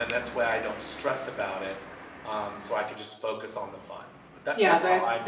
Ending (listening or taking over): taking over